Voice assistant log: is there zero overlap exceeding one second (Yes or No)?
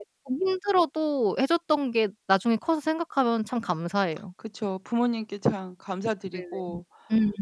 Yes